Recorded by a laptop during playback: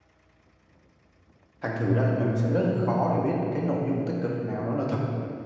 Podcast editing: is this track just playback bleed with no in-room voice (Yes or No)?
No